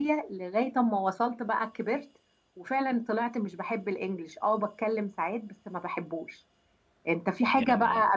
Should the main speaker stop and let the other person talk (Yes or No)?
No